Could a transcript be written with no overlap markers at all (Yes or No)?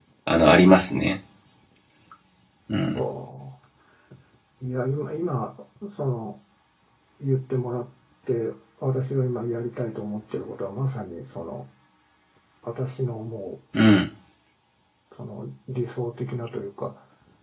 Yes